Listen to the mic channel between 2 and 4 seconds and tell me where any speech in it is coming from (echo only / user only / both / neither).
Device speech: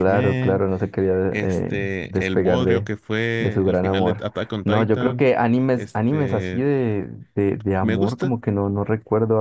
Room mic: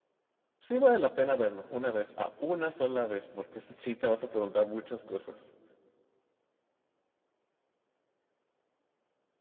user only